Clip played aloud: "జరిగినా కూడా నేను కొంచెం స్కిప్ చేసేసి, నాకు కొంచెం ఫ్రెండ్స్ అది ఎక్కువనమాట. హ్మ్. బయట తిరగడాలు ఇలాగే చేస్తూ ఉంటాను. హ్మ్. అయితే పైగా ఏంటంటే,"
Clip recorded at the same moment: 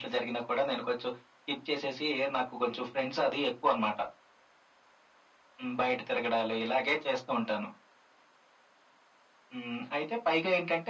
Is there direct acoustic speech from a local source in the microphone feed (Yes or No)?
No